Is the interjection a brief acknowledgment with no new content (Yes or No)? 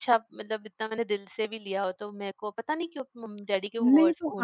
No